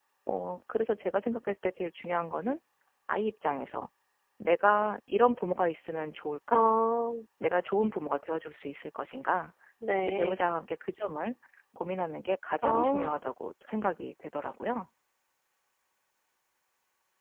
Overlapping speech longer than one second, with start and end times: none

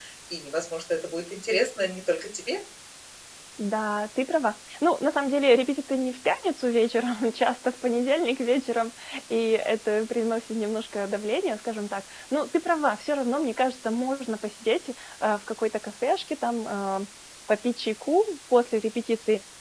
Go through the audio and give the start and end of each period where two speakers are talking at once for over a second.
none

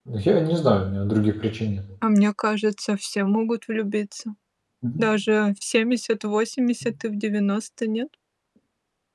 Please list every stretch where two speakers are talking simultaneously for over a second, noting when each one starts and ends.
none

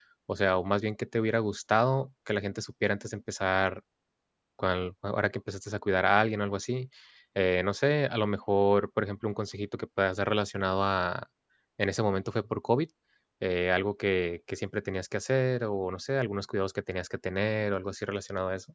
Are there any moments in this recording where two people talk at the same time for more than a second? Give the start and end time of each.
none

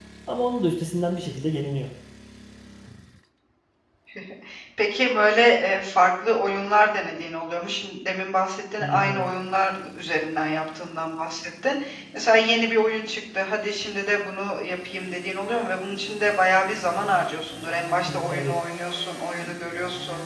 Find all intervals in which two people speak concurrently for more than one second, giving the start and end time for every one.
none

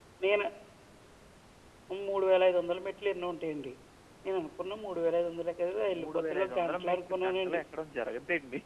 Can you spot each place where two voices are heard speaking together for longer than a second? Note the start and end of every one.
6.0-7.6

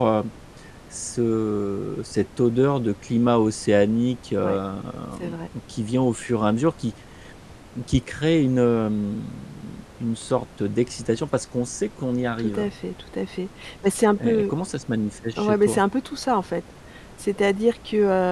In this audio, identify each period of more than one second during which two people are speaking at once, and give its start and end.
none

